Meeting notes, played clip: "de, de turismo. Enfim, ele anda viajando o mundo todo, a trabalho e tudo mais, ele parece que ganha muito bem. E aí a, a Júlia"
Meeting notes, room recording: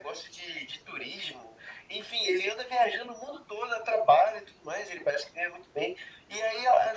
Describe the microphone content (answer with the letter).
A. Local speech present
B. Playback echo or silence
B